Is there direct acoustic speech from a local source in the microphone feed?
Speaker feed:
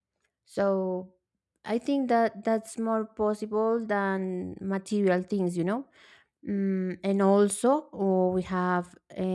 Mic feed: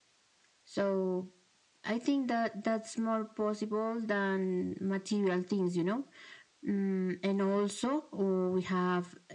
No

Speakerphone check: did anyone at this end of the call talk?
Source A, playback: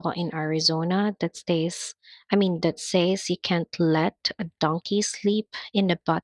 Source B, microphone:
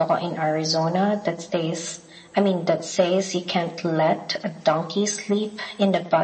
No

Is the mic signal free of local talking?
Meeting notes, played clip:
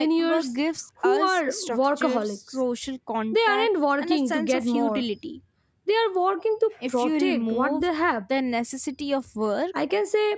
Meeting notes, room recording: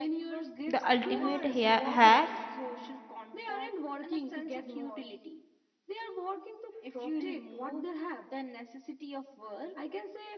No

